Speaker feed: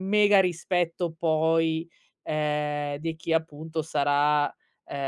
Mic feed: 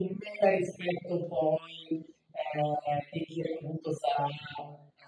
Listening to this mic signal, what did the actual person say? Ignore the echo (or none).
none